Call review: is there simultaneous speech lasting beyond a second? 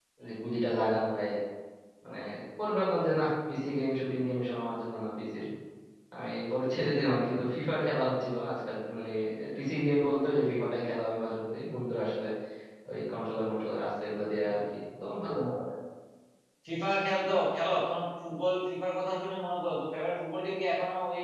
No

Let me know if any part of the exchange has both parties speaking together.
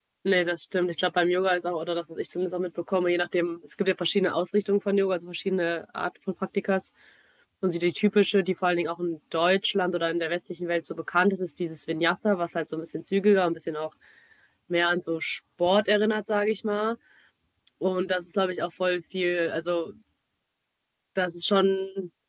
No

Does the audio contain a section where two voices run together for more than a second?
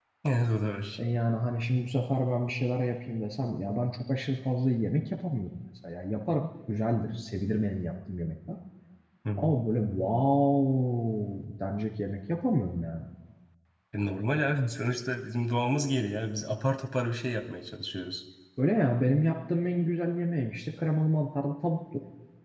No

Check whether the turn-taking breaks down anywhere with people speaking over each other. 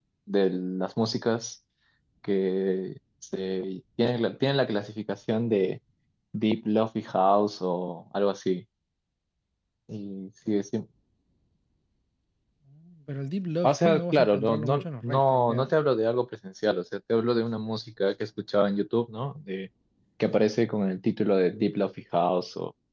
Yes, from 13.6 s

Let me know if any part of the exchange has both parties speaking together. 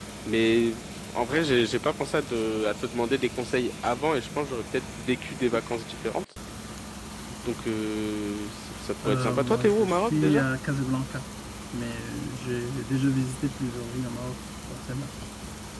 Yes, from 9.0 s

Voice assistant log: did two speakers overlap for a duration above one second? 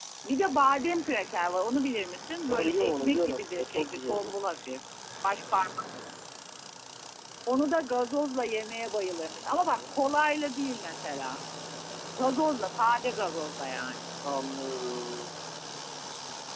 Yes, from 2.5 s

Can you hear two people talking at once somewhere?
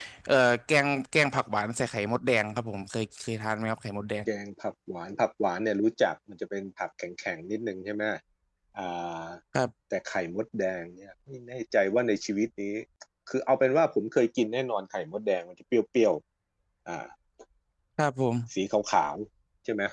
No

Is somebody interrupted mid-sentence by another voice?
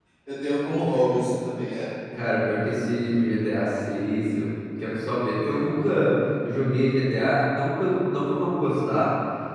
No

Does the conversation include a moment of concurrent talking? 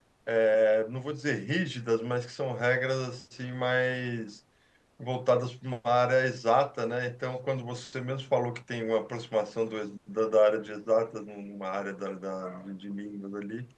No

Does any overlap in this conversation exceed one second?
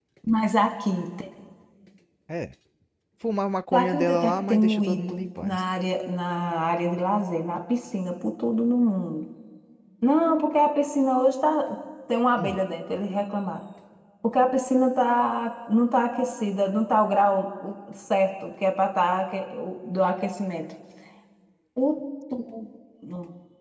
Yes, from 3.7 s

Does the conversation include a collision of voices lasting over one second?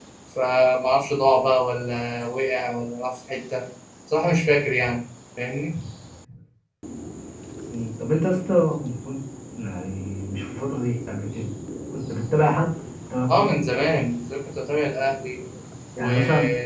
No

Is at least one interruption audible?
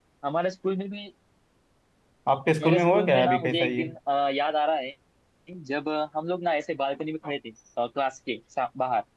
Yes, from 2.6 s

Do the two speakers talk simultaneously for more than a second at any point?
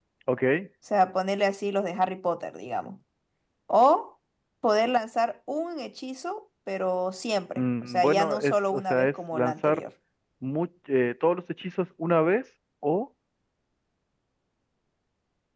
Yes, from 7.6 s

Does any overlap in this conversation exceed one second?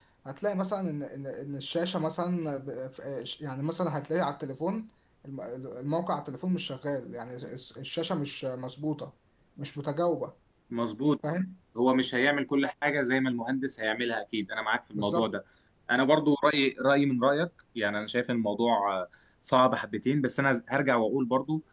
No

